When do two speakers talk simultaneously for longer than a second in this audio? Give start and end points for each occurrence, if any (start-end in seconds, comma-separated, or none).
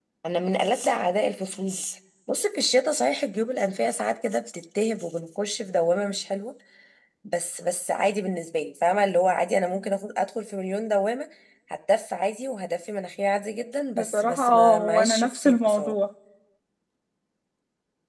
13.9-15.9